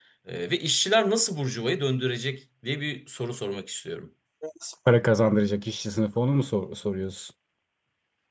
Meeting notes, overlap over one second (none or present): none